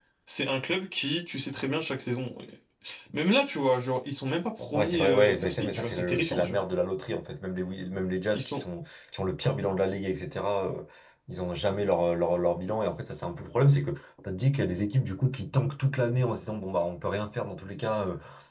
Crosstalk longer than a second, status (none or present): present